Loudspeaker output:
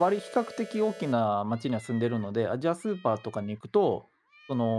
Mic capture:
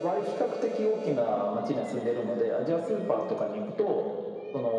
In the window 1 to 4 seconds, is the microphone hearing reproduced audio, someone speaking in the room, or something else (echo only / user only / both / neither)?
echo only